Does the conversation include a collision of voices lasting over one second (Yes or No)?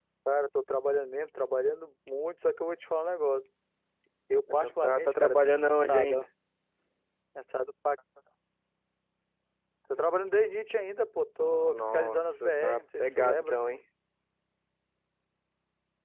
Yes